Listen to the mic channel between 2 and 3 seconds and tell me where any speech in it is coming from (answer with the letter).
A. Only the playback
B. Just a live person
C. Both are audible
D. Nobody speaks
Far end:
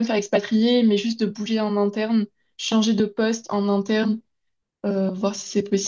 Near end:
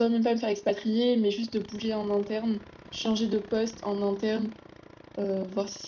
A